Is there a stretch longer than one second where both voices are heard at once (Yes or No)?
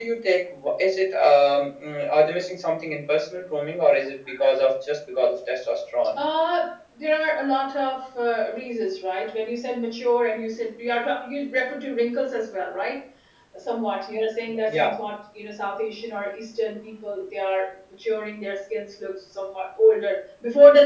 No